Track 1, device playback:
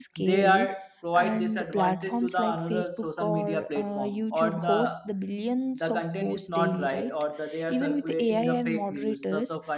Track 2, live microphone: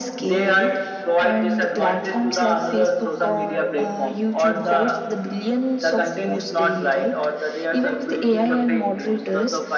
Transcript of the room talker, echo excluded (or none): none